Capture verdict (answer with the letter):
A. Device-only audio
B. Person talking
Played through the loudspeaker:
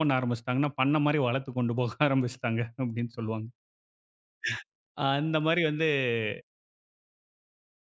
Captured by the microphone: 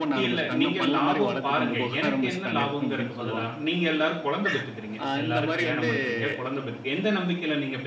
B